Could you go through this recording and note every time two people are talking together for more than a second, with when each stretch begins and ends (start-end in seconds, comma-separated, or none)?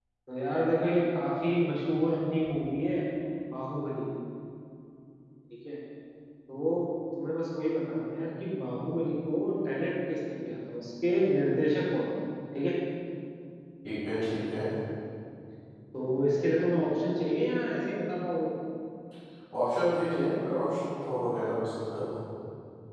none